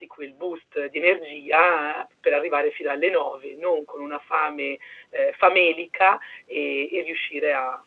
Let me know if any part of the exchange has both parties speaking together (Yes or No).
No